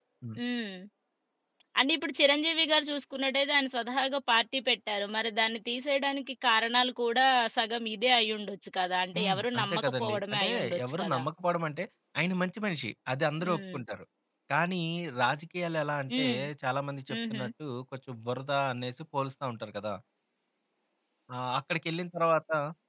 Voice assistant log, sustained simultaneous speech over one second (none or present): present